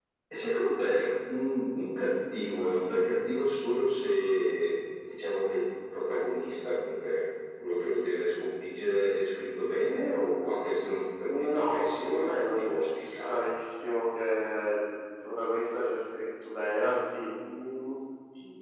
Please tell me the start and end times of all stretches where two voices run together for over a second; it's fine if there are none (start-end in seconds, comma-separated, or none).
11.3-13.5